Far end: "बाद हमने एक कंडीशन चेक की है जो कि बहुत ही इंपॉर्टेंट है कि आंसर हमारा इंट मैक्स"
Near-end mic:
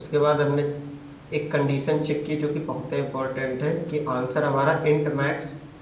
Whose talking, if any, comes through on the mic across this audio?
echo only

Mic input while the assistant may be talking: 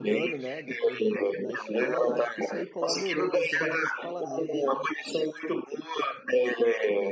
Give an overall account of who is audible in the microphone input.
both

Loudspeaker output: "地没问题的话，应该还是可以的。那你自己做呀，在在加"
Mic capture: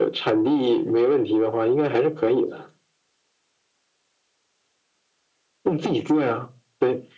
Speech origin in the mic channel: echo only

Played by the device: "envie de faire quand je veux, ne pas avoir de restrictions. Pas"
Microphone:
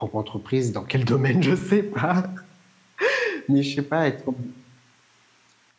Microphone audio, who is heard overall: user only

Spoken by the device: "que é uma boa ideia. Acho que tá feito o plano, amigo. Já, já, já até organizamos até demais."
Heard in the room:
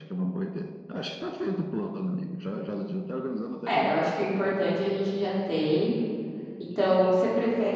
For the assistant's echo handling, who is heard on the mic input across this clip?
both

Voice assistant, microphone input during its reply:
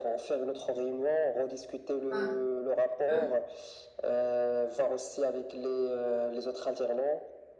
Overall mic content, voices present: both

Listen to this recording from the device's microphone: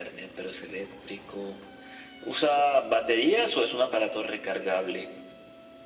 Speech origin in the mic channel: echo only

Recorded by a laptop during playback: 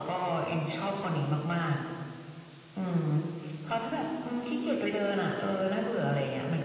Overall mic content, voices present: echo only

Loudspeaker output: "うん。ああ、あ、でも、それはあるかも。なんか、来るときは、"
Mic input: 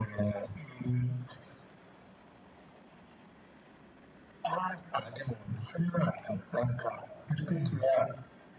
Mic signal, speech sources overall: both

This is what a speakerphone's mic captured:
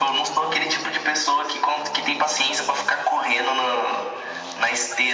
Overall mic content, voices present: echo only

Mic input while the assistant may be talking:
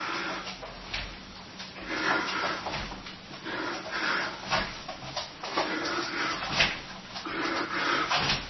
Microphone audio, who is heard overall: neither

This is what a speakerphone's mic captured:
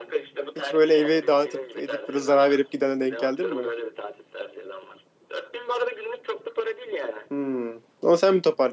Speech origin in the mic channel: both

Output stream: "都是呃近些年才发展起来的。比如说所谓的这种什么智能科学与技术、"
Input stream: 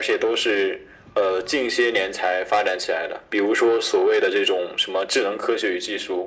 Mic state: echo only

